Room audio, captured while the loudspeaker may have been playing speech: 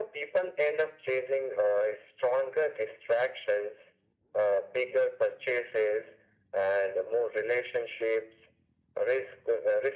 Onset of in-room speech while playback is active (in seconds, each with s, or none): none